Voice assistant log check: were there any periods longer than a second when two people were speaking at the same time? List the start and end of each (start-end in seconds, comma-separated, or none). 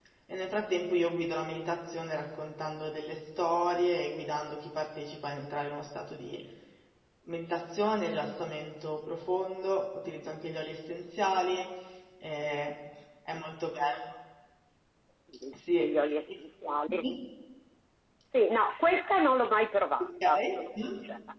none